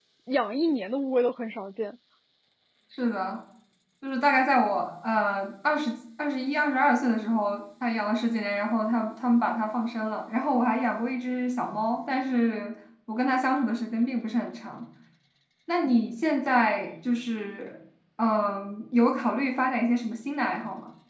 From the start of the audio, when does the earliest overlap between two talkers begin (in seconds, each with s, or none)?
none